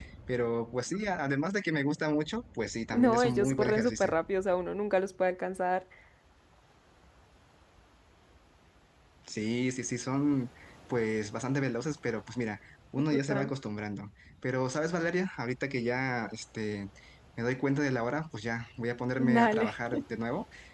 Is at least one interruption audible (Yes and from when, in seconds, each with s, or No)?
Yes, from 2.9 s